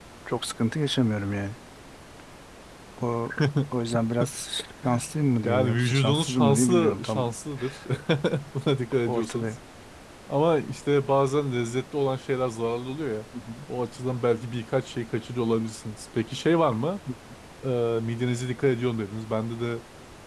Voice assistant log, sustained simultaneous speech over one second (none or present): present